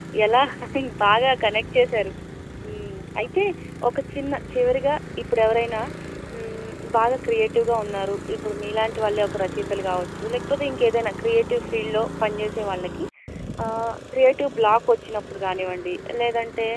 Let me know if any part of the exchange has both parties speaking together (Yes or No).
No